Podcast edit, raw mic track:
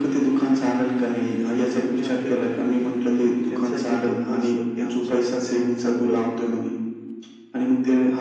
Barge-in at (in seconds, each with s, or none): 1.6 s